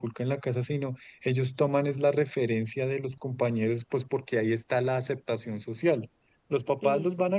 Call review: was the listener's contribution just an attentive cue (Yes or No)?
Yes